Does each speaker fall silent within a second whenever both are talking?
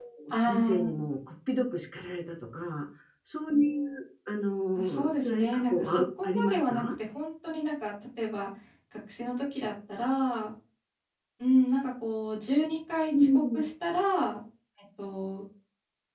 No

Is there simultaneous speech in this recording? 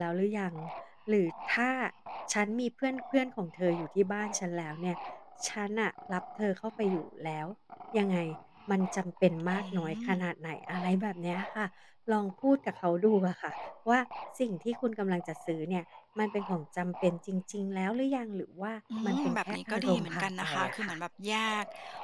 Yes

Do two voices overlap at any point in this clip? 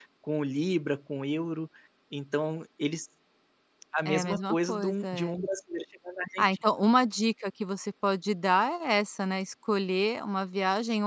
Yes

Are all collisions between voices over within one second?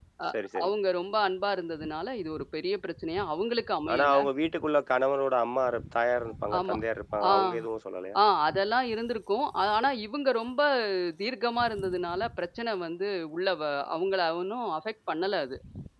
Yes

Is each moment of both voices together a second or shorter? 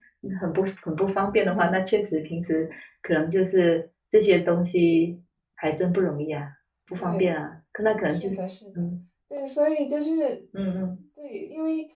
Yes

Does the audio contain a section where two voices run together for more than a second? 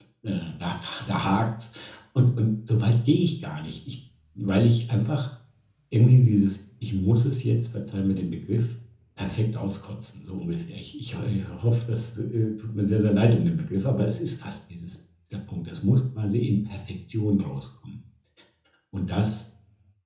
No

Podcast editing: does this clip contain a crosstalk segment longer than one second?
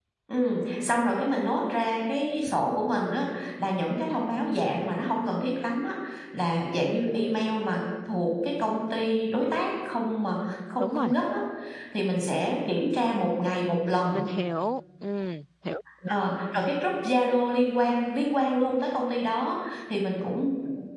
No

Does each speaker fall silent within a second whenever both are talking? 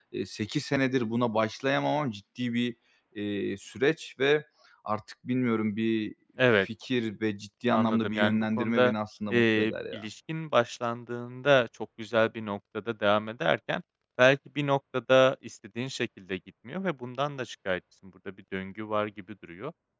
No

